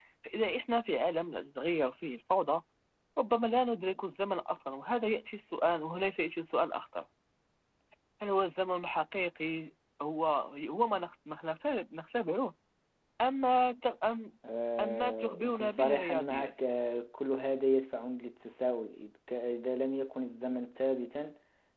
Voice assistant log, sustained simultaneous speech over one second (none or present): present